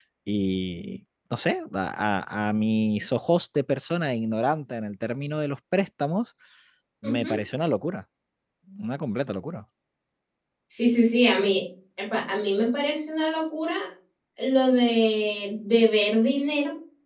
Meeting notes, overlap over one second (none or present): none